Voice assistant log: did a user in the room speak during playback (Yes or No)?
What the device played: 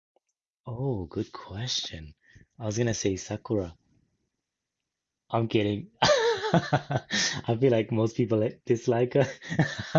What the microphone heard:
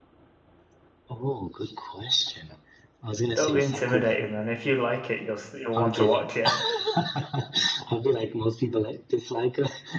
Yes